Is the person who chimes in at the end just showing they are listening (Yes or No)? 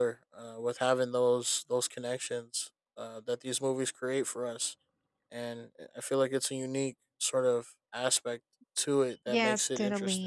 No